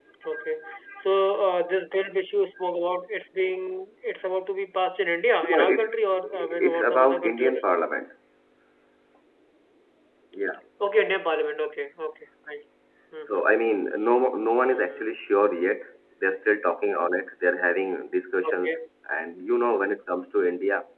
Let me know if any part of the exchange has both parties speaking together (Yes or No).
Yes